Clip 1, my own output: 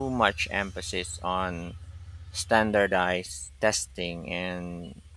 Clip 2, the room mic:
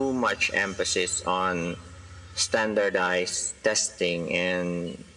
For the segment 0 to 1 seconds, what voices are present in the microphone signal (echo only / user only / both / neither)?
echo only